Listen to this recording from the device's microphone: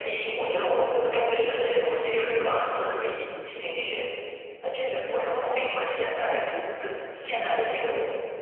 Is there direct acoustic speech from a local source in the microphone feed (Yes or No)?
No